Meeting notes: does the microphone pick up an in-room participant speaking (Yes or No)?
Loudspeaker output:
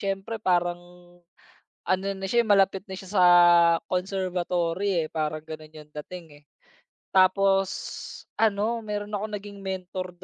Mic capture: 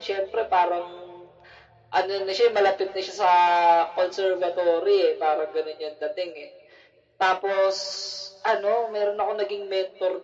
No